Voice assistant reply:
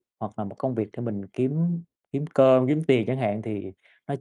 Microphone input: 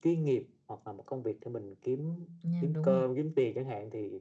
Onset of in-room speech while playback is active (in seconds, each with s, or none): 2.4 s